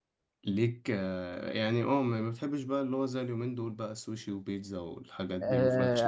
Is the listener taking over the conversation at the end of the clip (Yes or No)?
Yes